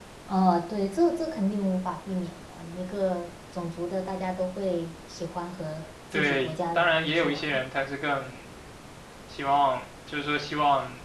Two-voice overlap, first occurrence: 6 s

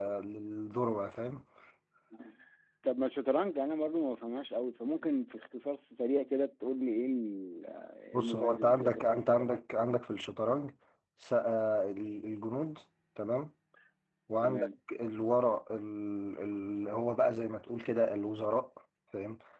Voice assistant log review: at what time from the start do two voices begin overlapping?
8 s

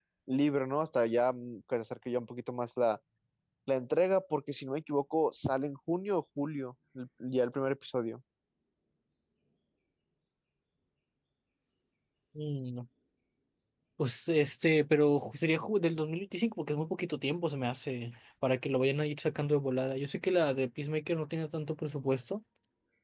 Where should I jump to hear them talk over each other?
none

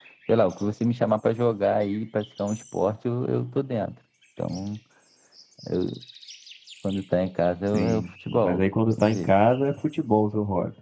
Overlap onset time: 8 s

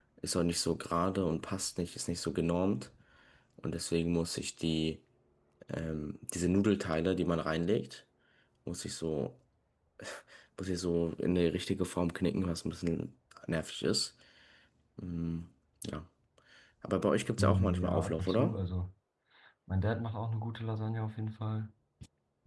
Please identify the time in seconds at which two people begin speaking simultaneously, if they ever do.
17 s

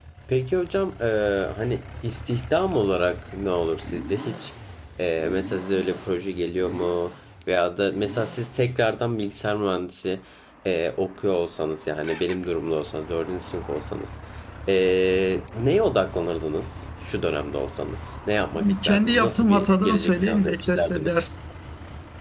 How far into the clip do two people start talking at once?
19 s

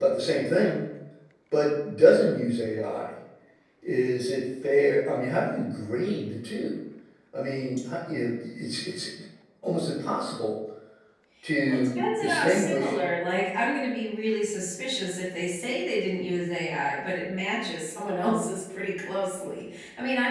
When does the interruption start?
12 s

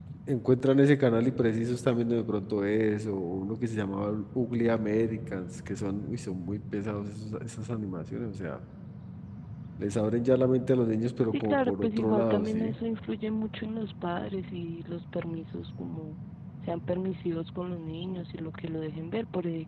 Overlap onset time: 11 s

